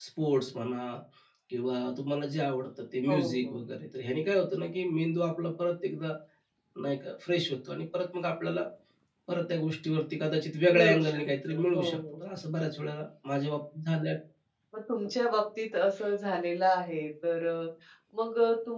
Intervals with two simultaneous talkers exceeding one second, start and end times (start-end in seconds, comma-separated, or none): 10.7-12.2